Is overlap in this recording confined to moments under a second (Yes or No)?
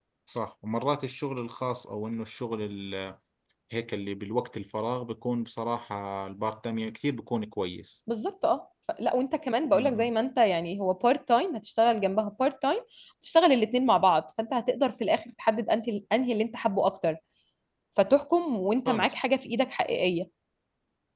Yes